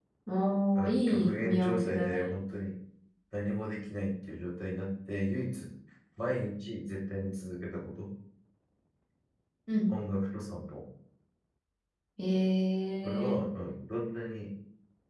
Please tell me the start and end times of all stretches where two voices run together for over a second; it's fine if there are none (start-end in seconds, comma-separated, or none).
0.8-2.3